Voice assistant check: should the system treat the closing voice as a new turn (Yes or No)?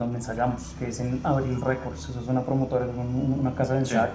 No